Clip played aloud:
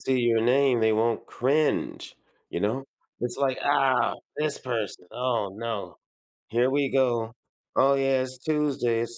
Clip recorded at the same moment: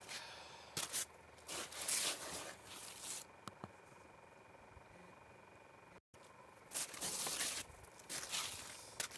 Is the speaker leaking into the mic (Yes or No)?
No